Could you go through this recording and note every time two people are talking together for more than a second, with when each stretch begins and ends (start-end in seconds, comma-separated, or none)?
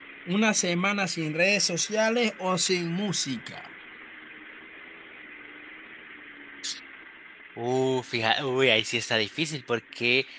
none